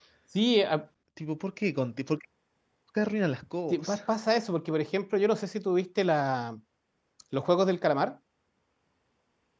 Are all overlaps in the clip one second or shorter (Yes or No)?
Yes